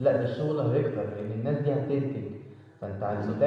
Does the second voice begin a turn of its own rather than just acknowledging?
No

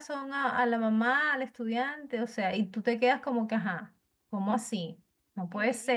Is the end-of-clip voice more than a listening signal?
Yes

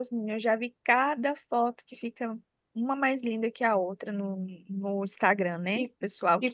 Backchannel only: No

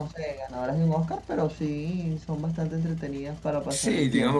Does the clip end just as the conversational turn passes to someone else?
Yes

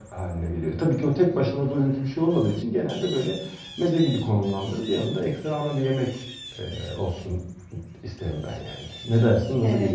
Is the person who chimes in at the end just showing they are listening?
No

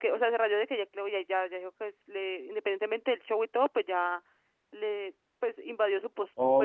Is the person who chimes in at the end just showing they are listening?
No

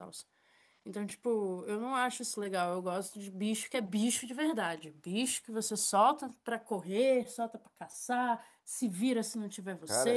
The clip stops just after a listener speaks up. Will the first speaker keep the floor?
No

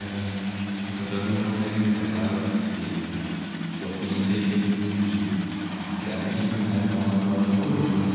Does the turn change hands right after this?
No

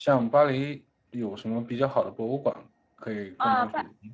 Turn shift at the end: Yes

